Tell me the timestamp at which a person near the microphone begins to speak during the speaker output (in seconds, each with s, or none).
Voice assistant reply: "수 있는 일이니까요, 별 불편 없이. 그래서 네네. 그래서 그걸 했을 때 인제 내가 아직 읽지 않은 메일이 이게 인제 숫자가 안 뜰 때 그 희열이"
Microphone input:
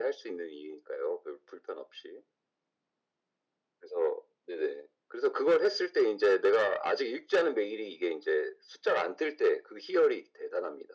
none